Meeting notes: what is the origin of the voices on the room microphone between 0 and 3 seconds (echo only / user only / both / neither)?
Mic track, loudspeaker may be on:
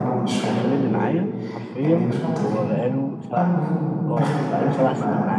both